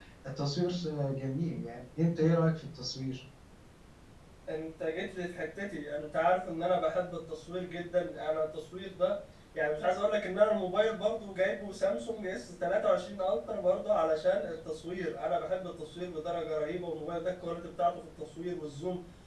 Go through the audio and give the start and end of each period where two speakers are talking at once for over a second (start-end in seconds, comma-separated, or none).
none